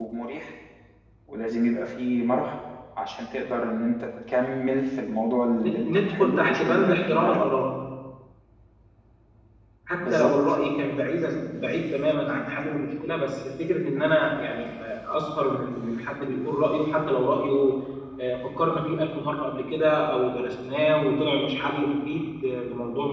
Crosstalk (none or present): present